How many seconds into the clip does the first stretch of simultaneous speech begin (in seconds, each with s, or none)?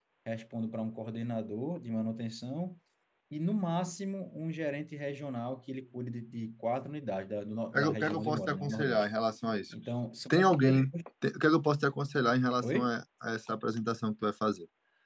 7.7 s